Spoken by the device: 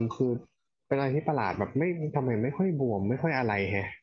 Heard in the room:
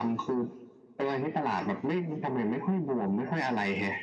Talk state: echo only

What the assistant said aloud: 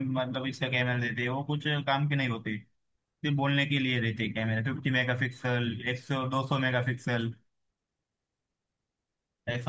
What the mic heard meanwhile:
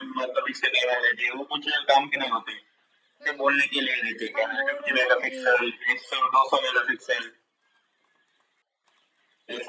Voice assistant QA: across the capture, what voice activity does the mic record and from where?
both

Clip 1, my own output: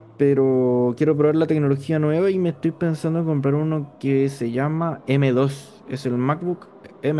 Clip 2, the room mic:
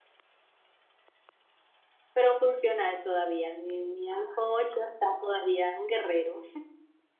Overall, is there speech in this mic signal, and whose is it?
user only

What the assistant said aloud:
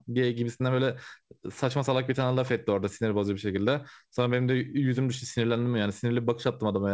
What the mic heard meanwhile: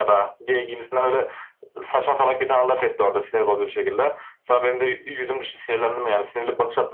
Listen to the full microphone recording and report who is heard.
echo only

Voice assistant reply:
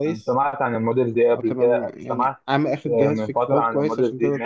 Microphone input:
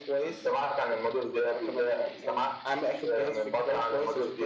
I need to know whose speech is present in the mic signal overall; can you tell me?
echo only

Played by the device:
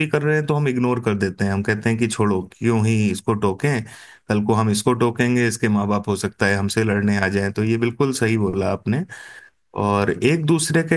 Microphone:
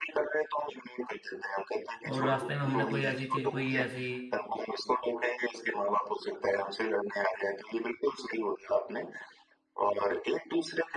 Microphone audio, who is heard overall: both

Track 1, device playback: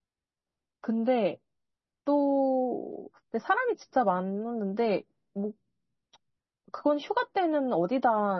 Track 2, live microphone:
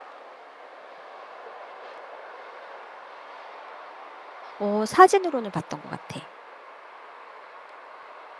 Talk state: user only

